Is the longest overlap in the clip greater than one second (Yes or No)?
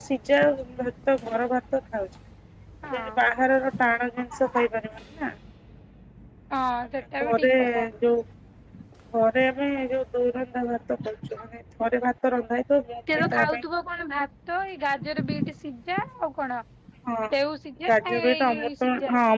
Yes